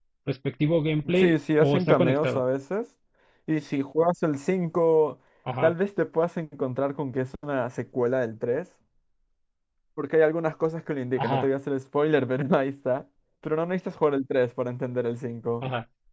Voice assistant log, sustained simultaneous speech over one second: present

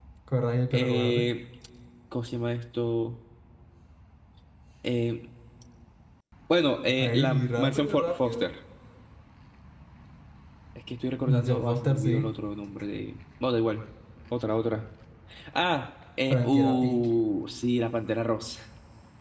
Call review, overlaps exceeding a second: present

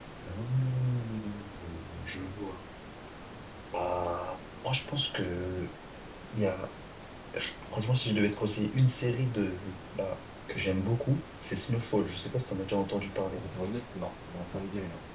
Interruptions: none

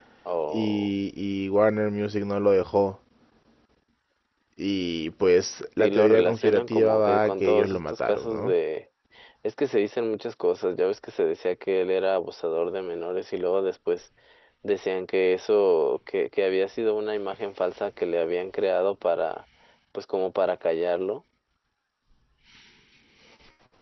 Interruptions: present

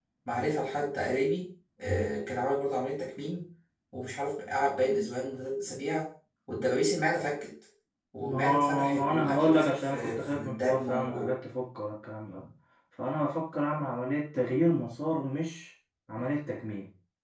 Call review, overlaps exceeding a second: present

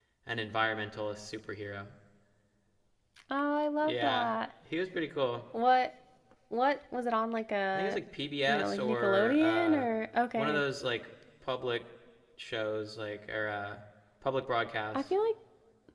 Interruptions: present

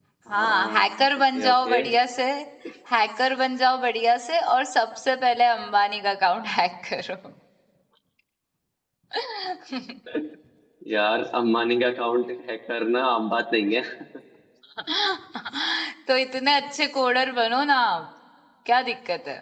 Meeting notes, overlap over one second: present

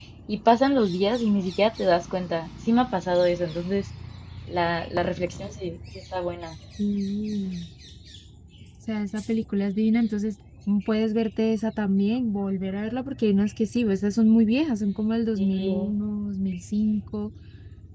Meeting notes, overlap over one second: none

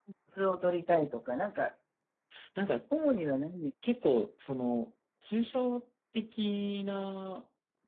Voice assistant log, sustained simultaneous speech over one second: none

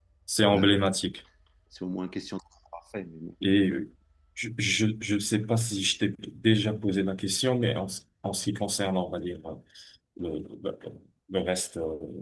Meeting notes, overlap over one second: none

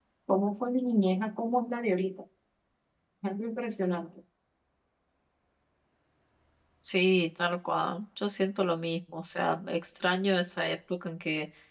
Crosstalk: none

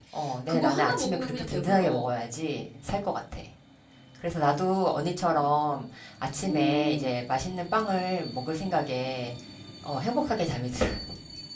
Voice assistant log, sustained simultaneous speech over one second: present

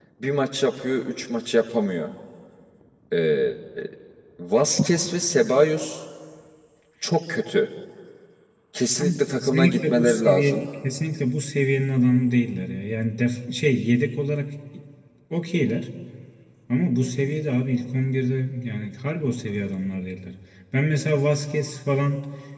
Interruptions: present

